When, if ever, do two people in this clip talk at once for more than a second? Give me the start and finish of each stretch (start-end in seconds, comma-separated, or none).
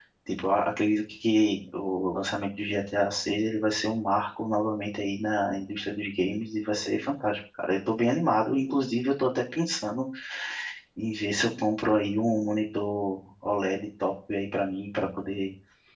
none